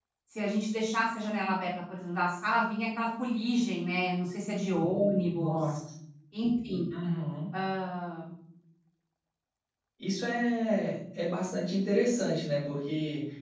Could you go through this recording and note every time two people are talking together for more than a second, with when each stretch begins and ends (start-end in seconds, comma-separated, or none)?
none